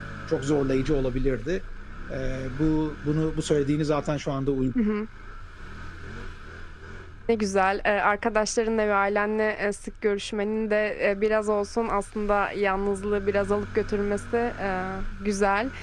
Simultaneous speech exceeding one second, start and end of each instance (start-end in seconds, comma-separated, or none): none